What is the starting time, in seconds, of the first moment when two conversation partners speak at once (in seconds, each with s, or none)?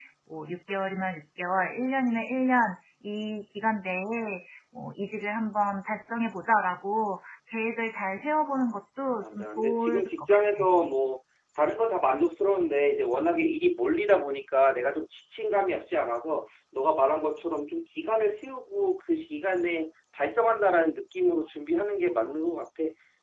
9.2 s